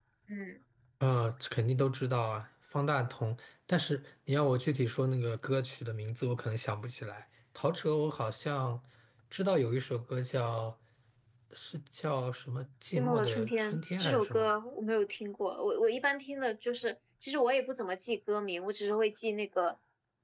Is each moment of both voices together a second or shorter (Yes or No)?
No